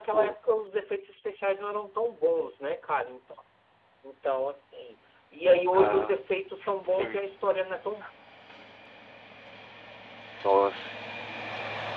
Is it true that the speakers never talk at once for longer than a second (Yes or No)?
Yes